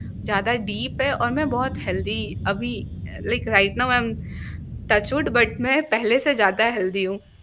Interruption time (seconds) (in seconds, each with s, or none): none